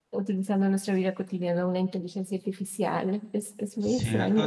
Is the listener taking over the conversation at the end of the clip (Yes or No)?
Yes